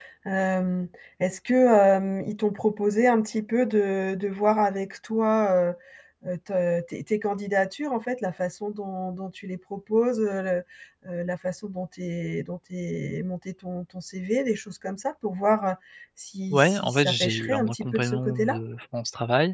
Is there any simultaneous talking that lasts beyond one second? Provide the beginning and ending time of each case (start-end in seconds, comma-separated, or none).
16.5-18.6